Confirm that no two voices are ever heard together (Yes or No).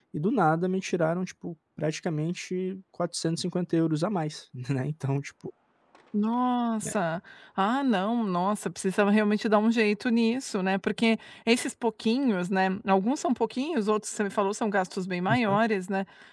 Yes